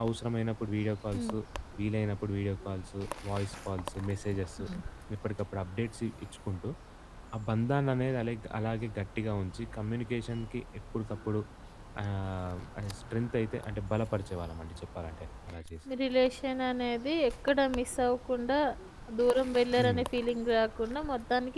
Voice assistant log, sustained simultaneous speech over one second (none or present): none